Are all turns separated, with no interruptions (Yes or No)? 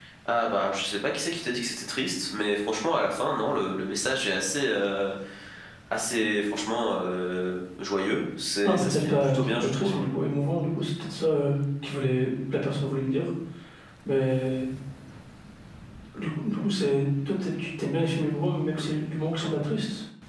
No